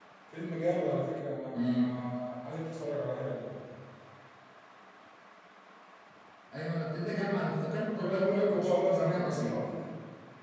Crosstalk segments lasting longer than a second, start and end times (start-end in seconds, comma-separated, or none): 8.0-9.6